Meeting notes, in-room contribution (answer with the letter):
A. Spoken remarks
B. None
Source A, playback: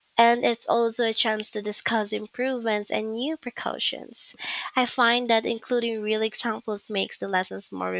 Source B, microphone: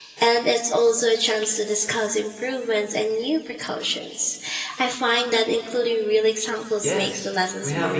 A